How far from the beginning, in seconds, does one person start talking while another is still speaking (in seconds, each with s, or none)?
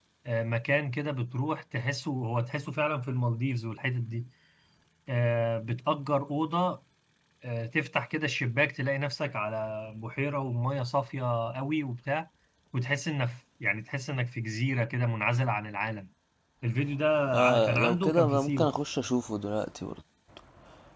17.3 s